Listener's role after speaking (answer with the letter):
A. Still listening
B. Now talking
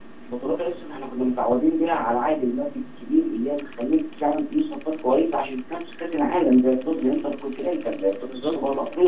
A